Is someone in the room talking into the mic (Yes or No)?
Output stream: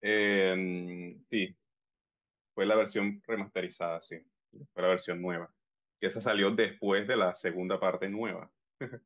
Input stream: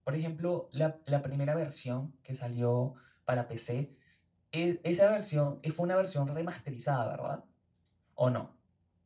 Yes